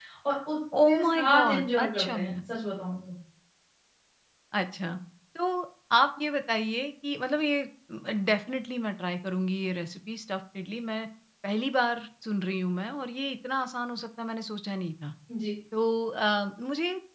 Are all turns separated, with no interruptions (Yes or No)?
No